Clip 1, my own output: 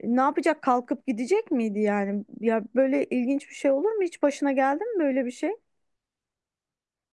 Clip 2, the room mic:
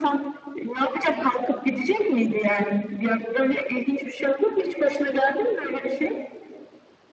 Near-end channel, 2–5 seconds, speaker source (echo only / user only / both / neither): echo only